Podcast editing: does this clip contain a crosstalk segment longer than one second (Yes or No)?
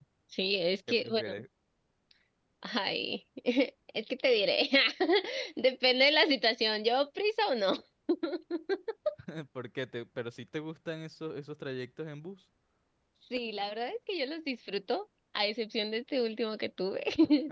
No